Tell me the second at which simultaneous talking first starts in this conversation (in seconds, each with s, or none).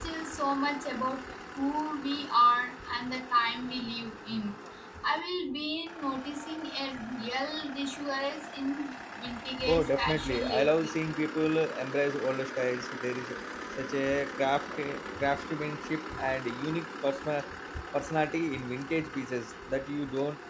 9.7 s